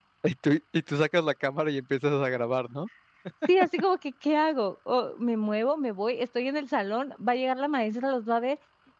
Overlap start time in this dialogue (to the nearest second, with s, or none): none